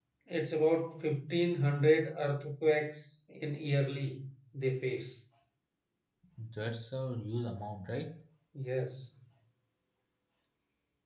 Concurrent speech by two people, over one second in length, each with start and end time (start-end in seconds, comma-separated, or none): none